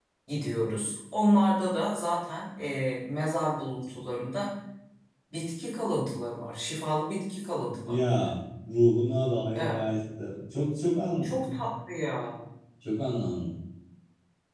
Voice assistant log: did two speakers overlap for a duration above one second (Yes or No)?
No